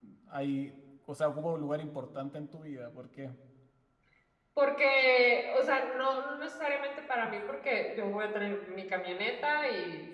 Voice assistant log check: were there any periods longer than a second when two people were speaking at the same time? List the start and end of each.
none

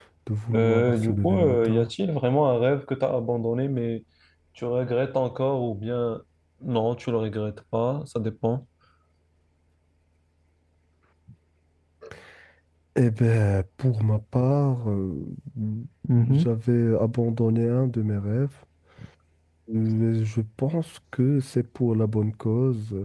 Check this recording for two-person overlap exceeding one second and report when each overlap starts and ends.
0.5-1.9

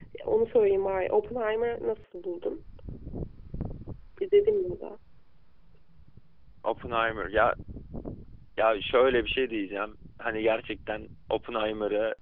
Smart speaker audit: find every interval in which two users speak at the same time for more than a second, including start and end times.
none

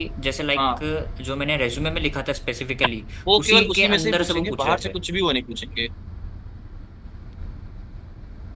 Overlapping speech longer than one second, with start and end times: 3.4-4.9

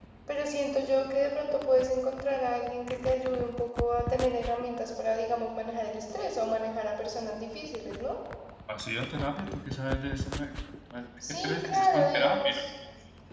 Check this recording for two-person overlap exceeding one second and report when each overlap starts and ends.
11.3-12.6

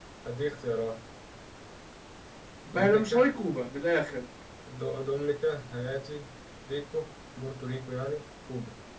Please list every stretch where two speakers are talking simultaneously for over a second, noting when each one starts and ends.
none

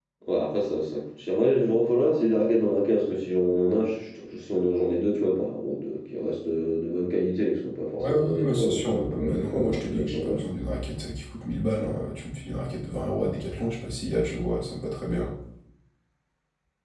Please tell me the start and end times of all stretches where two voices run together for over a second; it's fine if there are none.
8.0-10.4

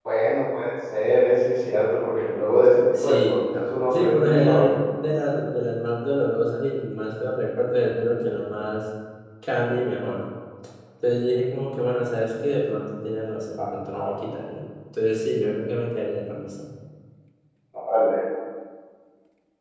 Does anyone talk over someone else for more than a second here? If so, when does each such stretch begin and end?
3.0-4.7

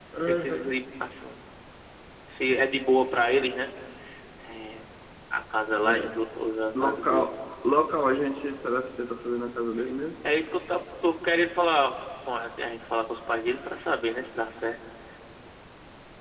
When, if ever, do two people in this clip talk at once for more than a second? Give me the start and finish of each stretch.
none

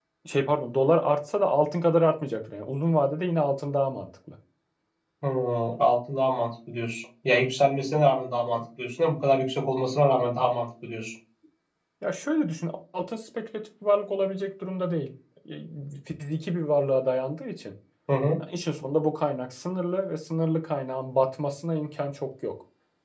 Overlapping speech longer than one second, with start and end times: none

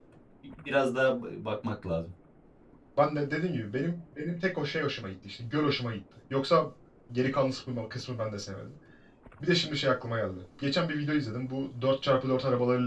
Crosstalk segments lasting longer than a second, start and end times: none

